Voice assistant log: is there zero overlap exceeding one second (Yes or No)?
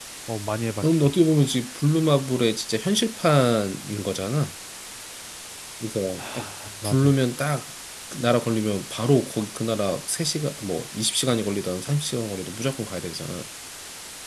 Yes